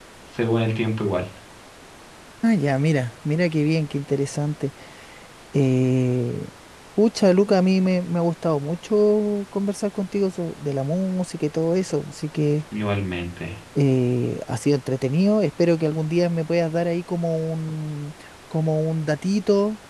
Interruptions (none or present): none